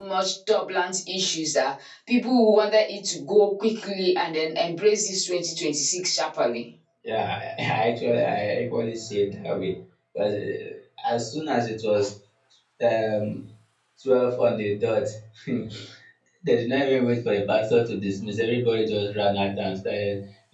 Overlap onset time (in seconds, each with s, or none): none